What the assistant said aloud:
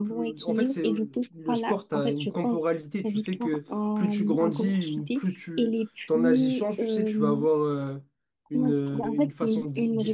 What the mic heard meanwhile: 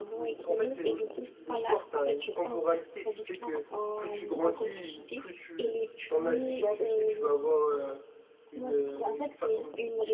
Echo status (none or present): present